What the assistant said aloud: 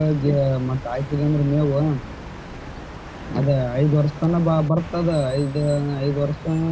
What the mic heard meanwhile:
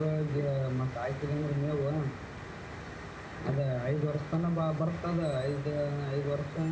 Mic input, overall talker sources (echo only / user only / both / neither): echo only